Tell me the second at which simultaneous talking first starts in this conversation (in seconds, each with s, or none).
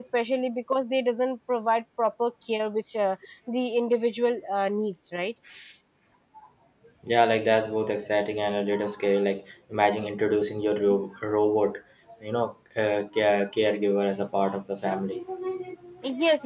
none